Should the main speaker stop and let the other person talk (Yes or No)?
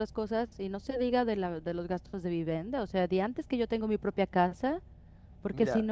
No